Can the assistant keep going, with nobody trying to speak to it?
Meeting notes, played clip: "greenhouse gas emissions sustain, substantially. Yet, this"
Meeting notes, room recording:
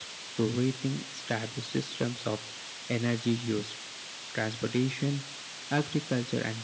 No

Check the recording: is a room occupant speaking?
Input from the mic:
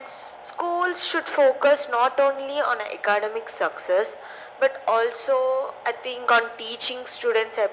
No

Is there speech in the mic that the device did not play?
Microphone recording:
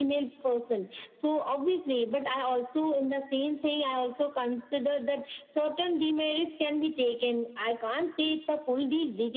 No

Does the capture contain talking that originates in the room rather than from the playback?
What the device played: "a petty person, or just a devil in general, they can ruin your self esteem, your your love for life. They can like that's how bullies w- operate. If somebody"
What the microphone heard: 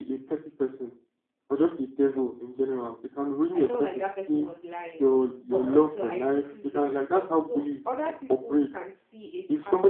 Yes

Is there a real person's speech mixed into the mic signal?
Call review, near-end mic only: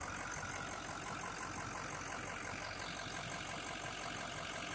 No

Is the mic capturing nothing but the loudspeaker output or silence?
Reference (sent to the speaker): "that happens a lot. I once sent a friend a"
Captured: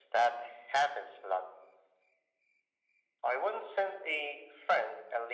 Yes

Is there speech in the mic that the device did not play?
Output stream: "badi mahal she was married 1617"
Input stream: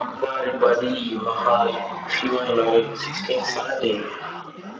Yes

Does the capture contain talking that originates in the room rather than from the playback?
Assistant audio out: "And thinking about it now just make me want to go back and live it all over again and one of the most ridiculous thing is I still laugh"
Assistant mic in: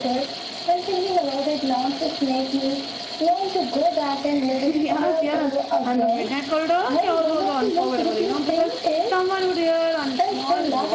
Yes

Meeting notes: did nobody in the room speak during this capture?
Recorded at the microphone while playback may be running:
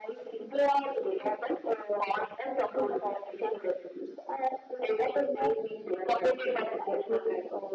Yes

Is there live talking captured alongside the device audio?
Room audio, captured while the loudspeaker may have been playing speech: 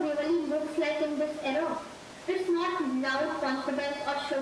No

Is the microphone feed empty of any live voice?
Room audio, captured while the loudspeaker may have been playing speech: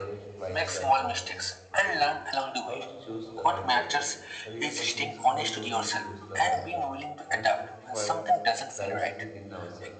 No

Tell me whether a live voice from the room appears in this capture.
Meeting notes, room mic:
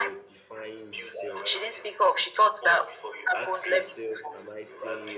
Yes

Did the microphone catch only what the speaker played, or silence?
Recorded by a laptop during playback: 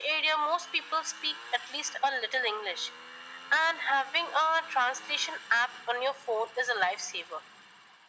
Yes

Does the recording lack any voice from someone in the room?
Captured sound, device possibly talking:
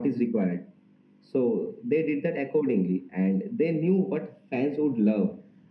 Yes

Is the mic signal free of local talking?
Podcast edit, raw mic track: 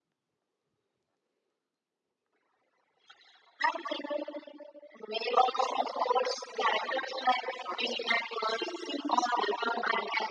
Yes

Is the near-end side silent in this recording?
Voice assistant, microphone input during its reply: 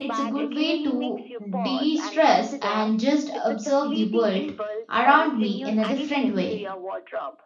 No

